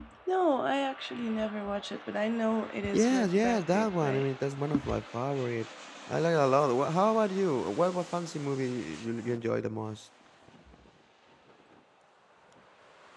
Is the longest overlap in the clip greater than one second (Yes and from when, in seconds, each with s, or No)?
Yes, from 2.9 s